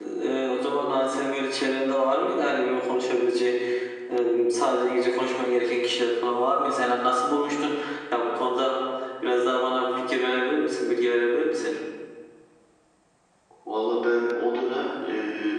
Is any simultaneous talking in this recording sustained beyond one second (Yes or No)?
No